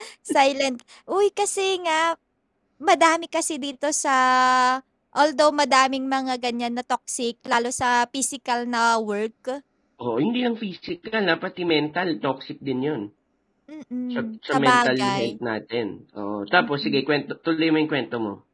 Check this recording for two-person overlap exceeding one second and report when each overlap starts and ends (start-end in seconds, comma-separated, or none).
14.1-15.4